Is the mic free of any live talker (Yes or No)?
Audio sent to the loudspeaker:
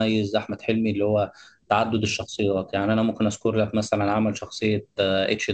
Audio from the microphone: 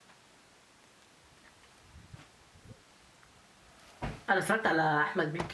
No